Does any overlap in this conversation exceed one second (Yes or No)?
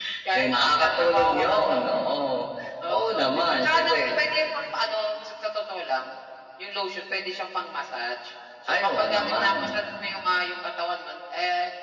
Yes